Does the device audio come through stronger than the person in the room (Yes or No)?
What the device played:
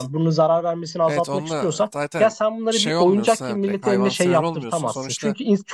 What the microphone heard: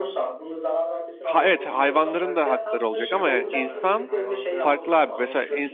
No